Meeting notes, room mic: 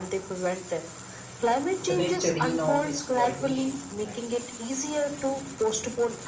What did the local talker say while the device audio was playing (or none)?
the next arena of exploitation, right?